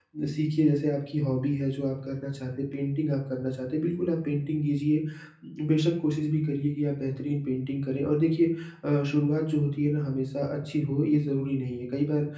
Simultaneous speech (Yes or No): No